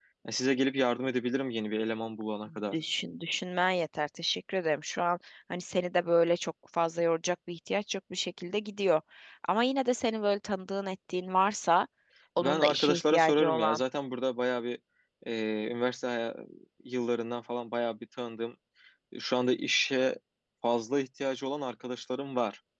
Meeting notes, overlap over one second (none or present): present